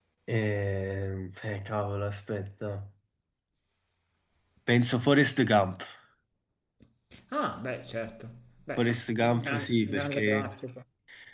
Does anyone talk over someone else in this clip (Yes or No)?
Yes